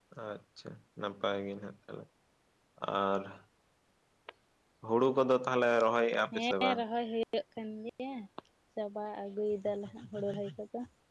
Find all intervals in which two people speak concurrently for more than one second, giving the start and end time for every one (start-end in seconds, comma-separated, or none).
none